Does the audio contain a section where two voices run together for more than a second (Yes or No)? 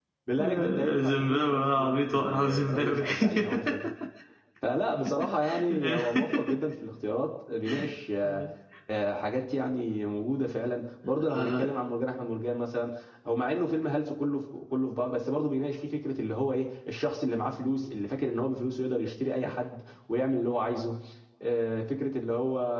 Yes